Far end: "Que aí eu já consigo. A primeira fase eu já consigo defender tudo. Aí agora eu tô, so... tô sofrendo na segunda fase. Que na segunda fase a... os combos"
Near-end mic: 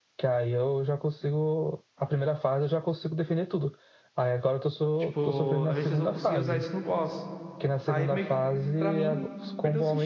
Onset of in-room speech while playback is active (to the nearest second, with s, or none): 5 s